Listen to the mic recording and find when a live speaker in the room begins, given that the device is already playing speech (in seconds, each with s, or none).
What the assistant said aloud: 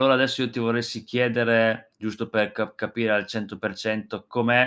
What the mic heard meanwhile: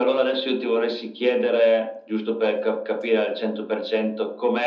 none